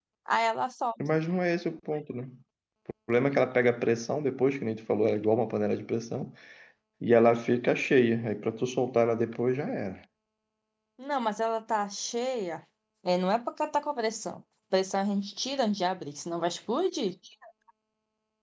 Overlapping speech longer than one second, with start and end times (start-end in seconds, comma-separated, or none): none